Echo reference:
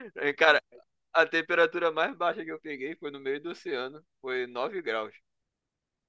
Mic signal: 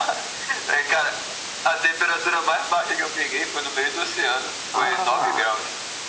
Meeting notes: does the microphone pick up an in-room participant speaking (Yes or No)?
Yes